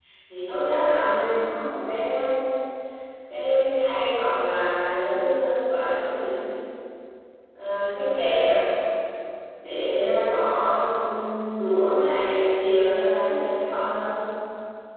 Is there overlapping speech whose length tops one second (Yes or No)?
No